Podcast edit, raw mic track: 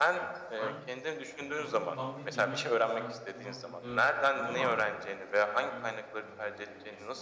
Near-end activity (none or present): present